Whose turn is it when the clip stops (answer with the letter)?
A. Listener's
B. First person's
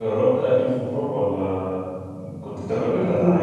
A